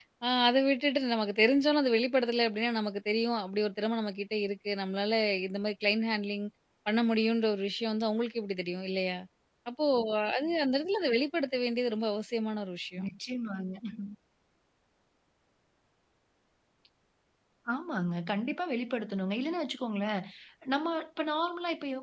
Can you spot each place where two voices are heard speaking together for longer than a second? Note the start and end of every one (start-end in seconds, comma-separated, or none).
none